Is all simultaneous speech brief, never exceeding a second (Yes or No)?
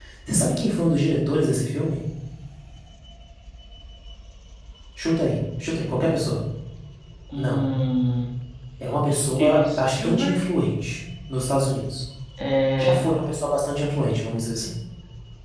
No